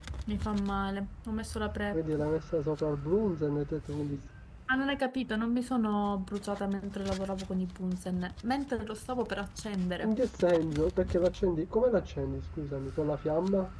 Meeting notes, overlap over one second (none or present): none